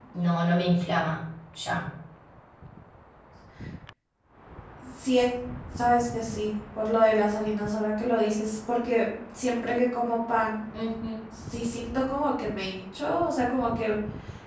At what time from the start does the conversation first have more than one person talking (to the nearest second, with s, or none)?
none